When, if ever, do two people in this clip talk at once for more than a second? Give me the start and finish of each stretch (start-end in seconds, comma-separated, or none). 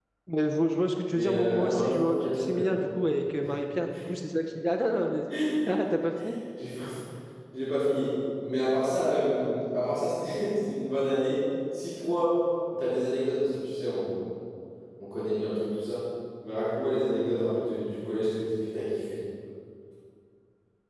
1.1-2.6